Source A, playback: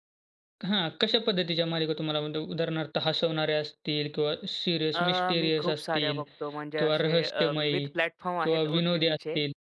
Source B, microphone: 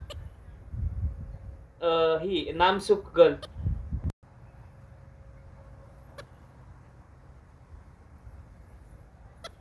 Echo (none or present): none